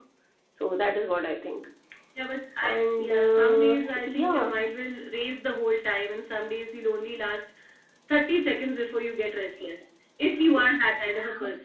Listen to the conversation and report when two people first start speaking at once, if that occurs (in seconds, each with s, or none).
2.7 s